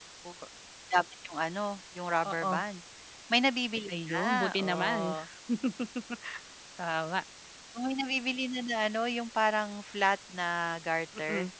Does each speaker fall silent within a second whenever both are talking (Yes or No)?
No